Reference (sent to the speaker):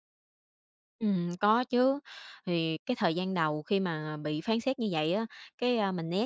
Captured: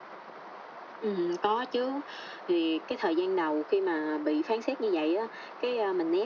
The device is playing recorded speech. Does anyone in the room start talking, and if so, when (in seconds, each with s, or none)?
none